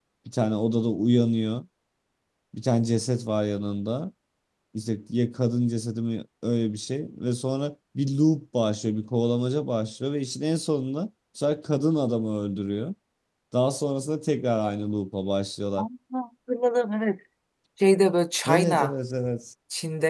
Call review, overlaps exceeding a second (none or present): none